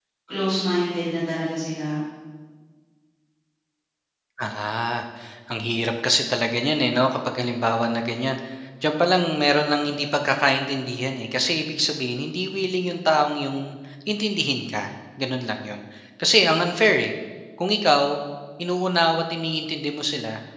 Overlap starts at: none

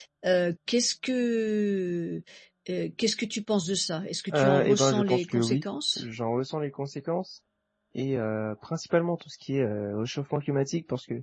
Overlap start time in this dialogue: 4.3 s

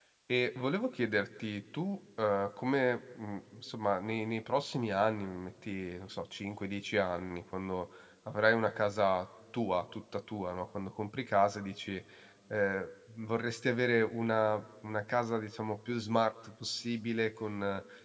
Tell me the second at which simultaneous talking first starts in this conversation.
none

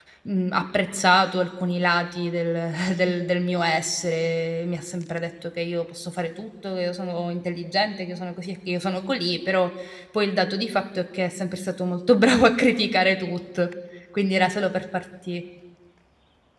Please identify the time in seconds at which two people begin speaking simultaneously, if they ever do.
none

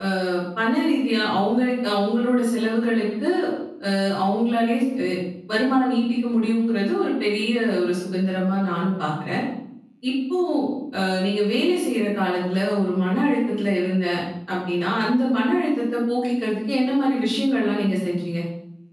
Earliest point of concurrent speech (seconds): none

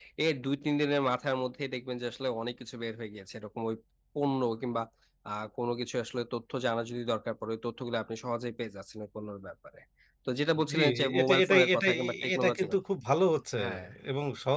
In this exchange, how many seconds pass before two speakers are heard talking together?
10.7 s

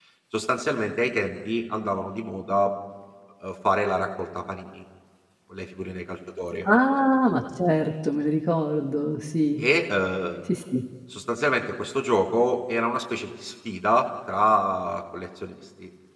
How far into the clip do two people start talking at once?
none

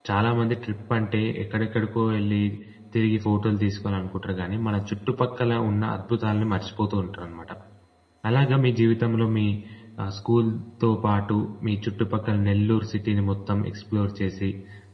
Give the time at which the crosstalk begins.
none

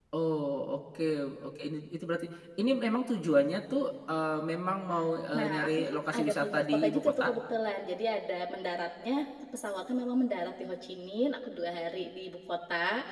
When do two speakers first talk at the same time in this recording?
5.3 s

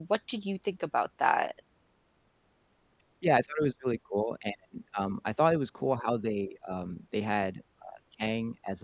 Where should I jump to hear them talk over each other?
none

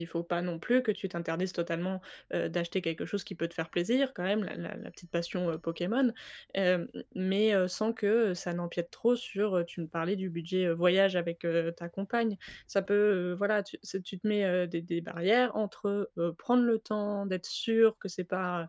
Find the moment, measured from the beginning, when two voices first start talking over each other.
none

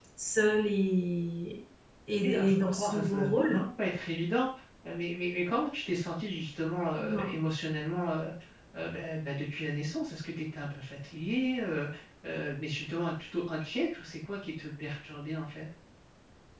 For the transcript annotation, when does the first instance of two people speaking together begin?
2.2 s

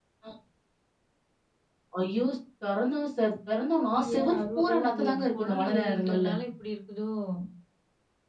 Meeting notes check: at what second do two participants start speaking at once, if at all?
3.9 s

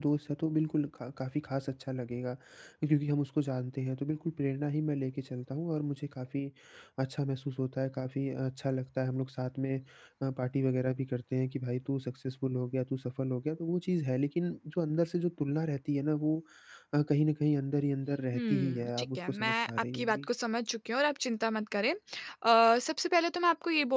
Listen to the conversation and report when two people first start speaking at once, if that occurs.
18.3 s

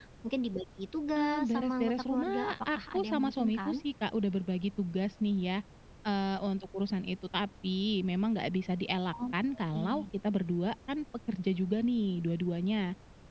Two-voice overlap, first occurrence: 1.2 s

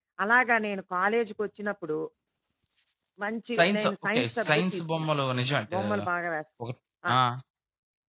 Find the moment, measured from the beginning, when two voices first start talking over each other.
3.6 s

